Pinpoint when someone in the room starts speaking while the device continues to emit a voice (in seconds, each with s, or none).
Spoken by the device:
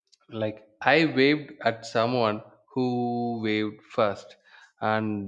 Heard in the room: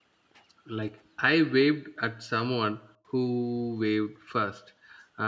none